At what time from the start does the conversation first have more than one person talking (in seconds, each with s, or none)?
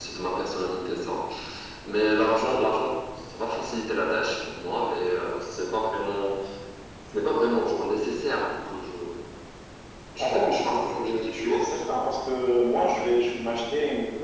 10.2 s